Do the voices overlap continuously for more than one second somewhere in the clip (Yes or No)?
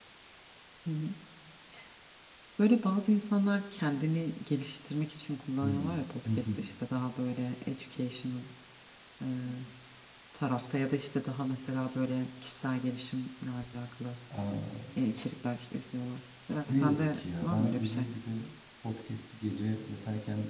Yes